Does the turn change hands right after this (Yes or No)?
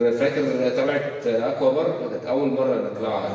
Yes